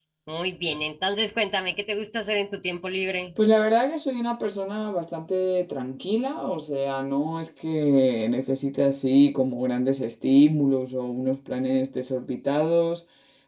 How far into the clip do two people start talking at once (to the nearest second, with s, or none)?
none